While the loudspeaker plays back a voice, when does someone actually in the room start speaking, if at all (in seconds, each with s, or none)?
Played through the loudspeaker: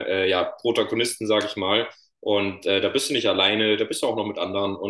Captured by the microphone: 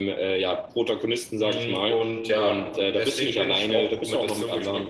1.4 s